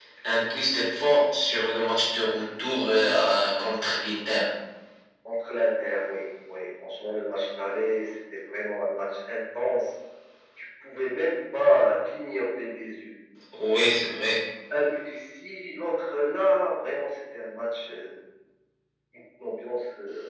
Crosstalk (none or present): none